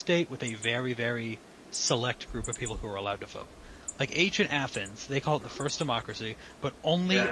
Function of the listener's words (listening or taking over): listening